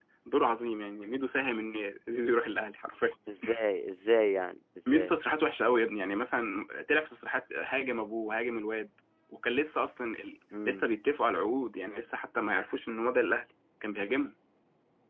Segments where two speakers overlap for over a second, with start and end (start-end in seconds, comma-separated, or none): none